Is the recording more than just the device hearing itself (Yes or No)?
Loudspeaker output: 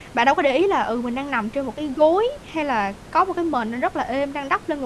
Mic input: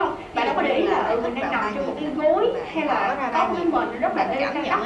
Yes